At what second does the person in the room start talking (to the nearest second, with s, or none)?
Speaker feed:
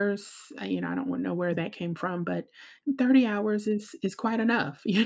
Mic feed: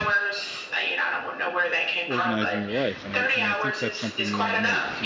2 s